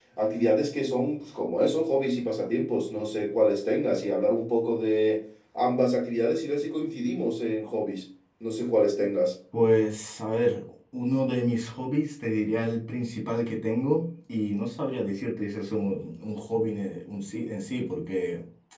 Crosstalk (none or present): none